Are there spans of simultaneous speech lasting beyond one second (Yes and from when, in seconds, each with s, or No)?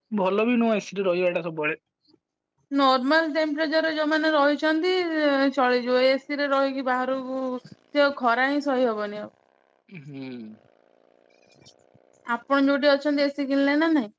No